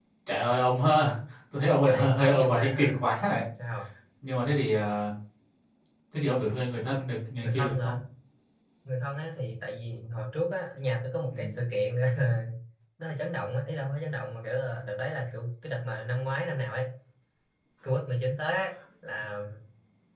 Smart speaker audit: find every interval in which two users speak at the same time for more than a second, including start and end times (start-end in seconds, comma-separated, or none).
1.8-3.0